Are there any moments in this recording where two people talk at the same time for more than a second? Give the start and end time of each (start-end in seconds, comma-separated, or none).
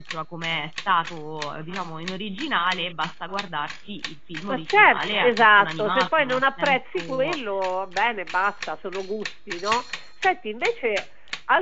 4.5-7.4